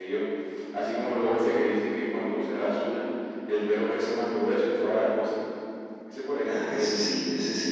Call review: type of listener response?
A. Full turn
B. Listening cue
A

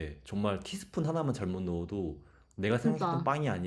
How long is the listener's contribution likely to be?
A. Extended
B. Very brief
B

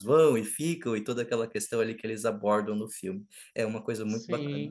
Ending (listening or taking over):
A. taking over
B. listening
A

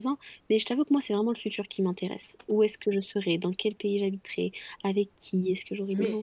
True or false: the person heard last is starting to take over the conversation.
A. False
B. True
B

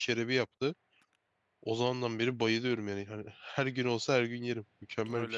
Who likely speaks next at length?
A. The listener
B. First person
A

